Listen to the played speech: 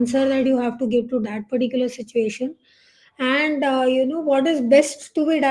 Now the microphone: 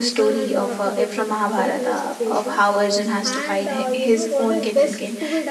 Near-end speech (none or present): present